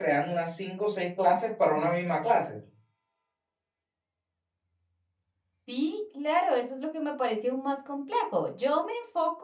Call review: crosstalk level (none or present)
none